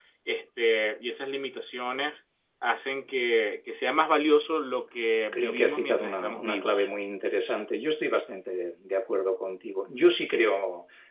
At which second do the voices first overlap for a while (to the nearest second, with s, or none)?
5 s